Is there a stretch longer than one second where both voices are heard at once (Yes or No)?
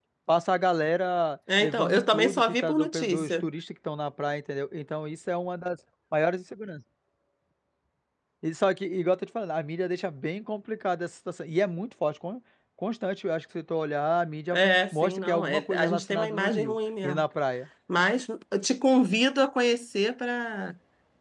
Yes